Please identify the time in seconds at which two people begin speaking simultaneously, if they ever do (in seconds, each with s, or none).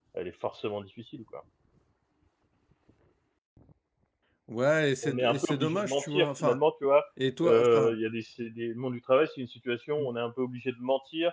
5.0 s